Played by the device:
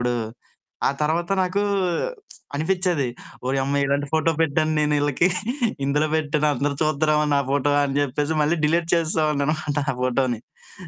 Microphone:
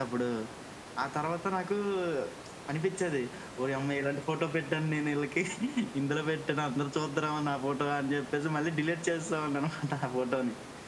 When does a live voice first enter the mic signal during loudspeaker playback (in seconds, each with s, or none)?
none